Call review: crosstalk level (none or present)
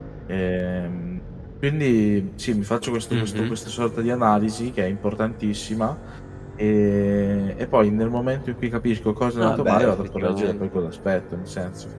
present